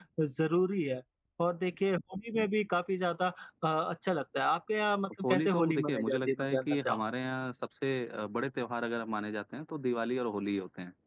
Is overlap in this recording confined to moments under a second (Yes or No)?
No